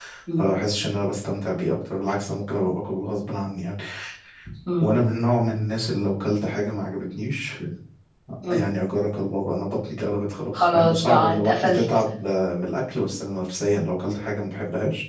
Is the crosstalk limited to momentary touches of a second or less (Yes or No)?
No